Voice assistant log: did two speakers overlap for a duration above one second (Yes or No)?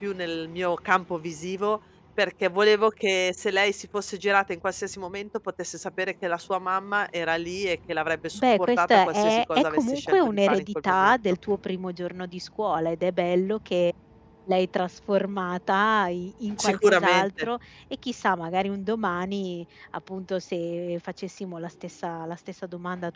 Yes